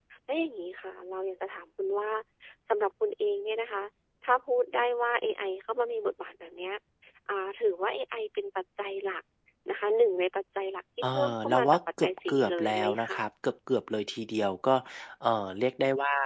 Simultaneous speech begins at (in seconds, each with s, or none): 11.0 s